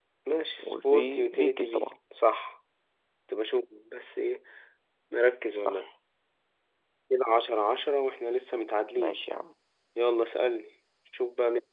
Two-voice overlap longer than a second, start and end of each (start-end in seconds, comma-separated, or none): 0.6-1.9